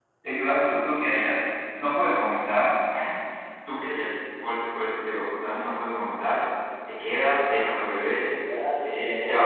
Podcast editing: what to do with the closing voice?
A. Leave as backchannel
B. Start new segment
B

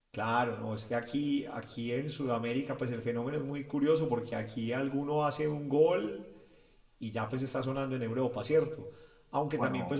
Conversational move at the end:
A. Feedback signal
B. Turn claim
A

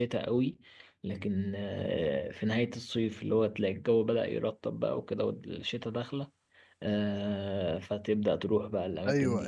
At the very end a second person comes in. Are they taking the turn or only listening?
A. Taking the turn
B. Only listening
A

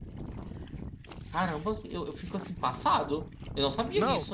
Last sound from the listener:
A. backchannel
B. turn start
B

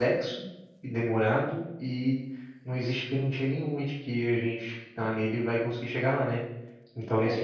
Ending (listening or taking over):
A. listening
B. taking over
B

